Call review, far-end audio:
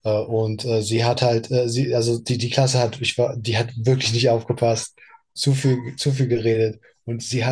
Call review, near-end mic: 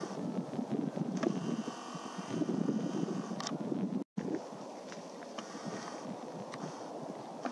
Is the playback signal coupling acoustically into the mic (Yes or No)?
No